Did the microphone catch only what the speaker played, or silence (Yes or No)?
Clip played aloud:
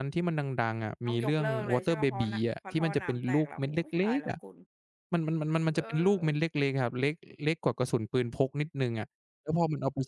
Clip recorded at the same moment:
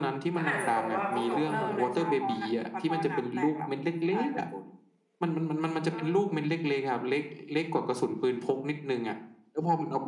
No